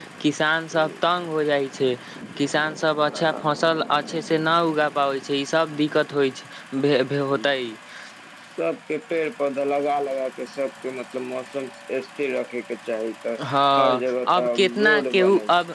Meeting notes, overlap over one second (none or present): present